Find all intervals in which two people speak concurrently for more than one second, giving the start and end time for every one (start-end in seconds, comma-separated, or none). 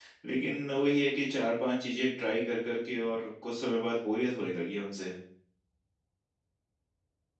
none